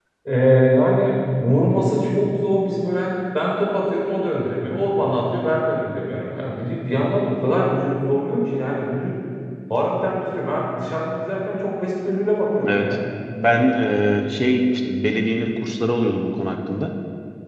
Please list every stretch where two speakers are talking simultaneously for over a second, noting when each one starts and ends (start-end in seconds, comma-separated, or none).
none